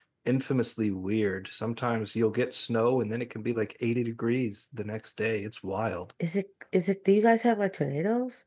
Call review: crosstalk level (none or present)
none